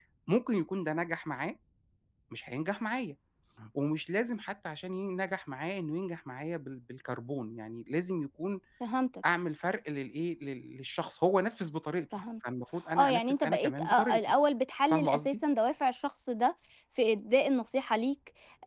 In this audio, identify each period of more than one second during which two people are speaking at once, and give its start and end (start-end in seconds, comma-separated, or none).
13.0-14.3